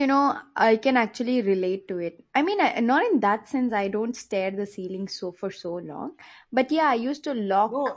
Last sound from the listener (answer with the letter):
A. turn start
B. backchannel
A